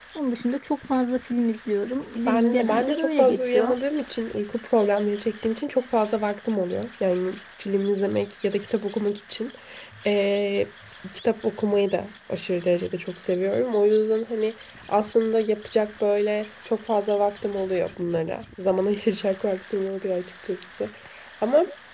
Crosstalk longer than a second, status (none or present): present